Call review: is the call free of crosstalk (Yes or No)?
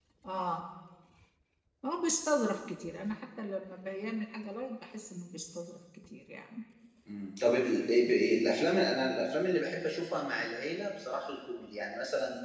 Yes